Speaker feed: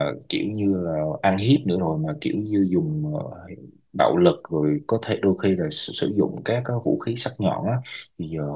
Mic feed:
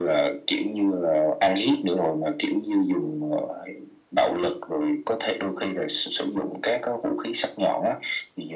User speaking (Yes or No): No